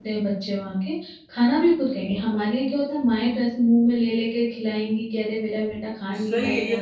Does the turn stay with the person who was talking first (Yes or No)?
No